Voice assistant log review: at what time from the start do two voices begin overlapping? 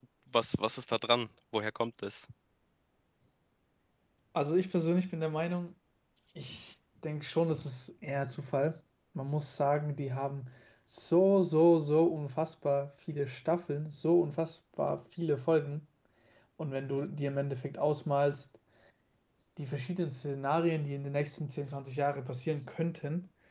none

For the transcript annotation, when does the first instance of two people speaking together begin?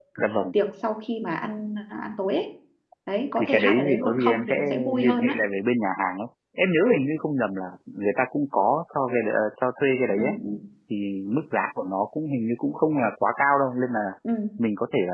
3.4 s

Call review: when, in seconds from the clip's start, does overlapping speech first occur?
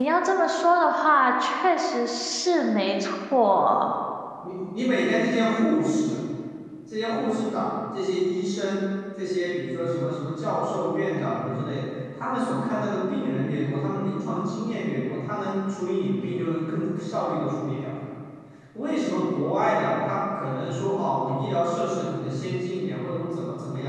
none

